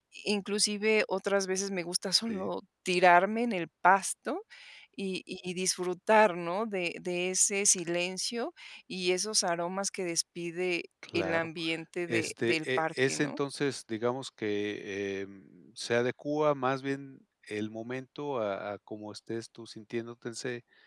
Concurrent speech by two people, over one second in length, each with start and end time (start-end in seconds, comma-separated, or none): 12.1-13.4